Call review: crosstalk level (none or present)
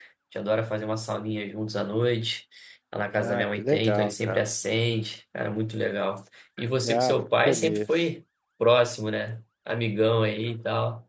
present